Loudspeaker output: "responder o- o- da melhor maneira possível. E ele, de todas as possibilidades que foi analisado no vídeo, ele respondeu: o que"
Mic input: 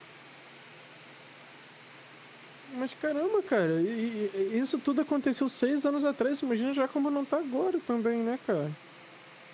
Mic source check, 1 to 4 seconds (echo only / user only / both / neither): user only